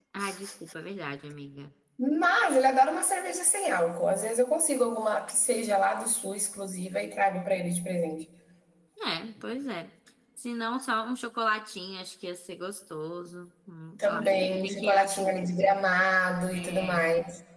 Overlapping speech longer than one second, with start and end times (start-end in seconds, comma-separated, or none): 14.0-15.4